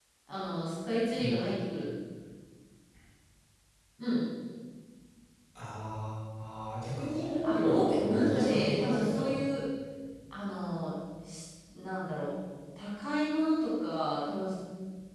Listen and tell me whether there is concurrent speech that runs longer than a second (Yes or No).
Yes